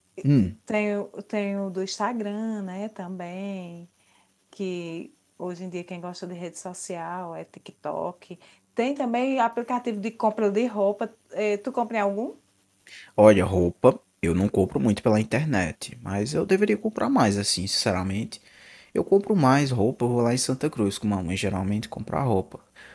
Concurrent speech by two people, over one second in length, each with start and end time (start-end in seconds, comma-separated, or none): none